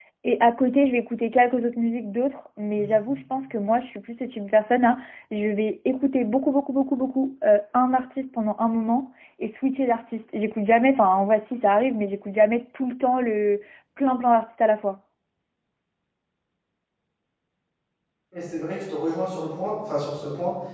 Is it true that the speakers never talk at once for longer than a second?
Yes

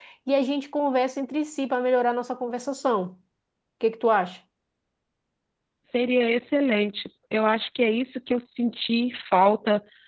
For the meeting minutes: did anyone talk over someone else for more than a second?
No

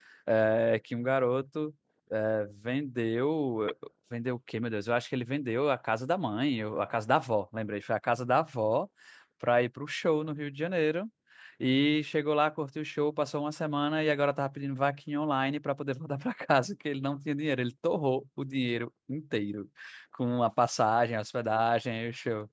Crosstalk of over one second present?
No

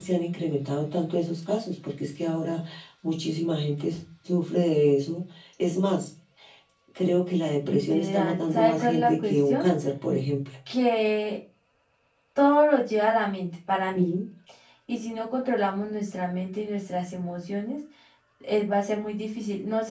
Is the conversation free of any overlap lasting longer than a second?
No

